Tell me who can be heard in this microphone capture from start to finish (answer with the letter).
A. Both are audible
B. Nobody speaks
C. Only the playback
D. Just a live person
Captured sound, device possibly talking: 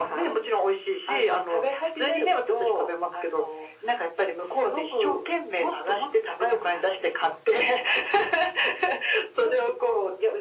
C